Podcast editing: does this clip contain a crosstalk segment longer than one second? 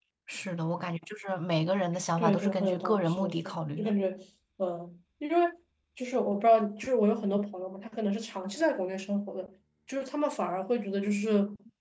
Yes, from 2.2 s

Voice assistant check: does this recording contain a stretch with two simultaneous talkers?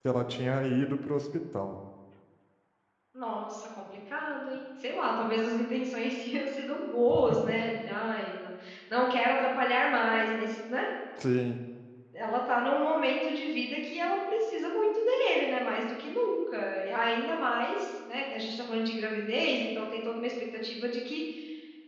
No

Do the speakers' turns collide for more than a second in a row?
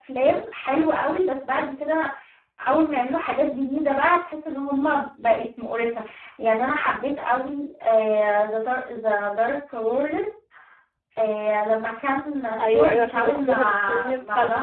Yes, from 12.6 s

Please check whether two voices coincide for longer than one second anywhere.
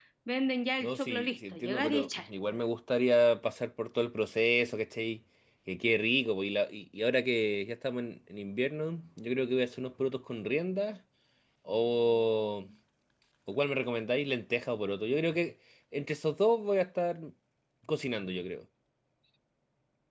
Yes, from 0.8 s

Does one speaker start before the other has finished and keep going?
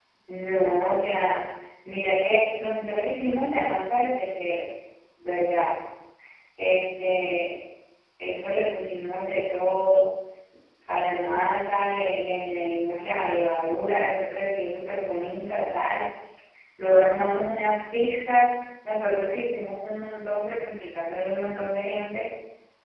No

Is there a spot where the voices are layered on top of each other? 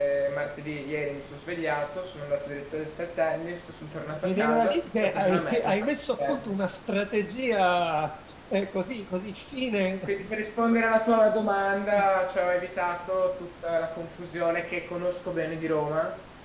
Yes, from 4.2 s

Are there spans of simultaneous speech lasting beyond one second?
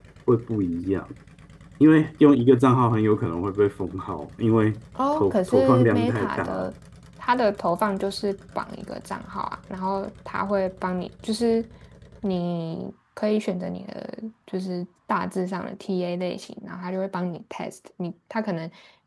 Yes, from 5.0 s

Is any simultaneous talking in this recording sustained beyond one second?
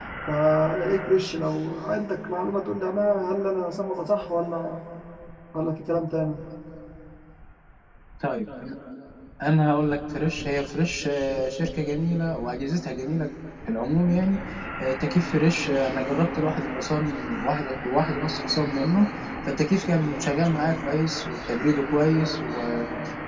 No

